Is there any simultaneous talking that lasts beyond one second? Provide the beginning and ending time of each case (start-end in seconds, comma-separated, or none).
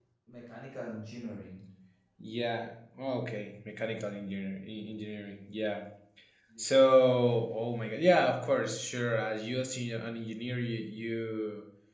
none